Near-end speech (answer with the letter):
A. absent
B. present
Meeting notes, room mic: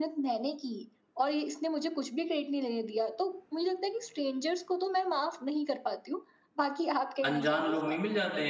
B